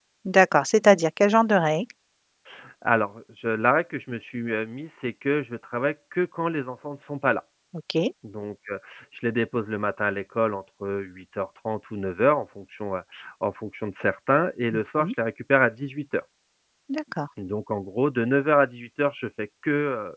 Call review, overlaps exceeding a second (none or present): none